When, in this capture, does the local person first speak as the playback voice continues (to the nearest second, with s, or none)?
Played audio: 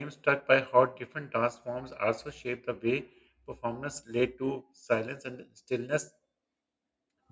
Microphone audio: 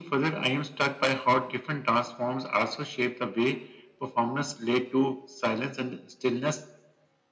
none